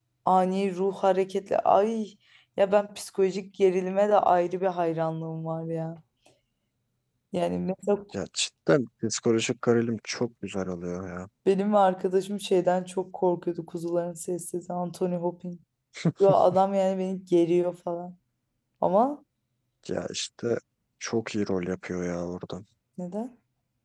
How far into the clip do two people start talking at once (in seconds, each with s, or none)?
none